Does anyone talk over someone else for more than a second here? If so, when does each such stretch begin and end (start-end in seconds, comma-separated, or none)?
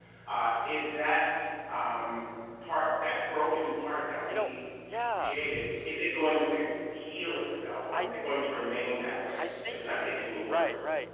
none